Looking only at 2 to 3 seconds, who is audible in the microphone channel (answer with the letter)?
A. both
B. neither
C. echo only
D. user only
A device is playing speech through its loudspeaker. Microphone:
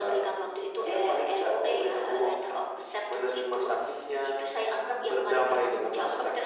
C